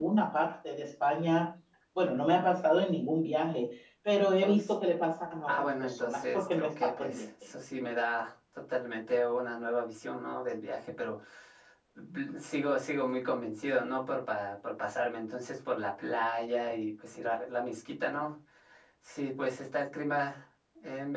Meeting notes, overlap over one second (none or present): present